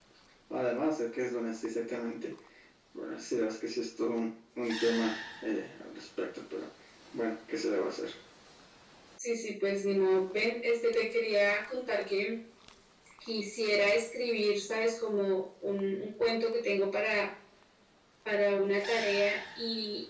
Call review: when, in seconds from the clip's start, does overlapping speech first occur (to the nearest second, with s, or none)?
none